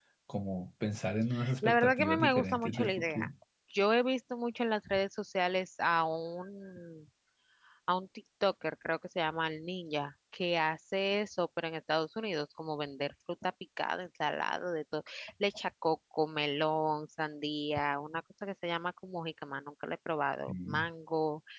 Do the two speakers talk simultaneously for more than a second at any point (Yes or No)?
Yes